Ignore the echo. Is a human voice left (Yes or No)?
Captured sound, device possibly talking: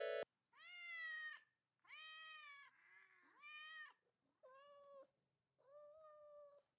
No